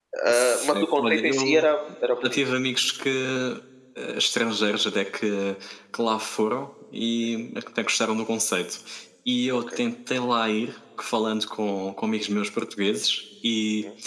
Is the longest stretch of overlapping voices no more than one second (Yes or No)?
No